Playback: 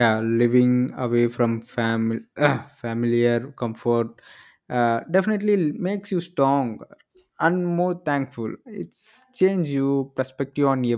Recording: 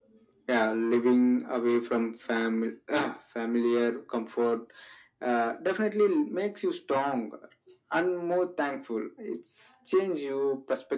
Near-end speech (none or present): none